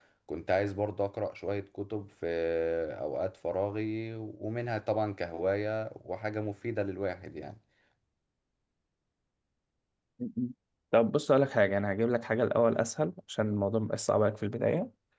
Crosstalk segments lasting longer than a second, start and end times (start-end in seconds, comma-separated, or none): none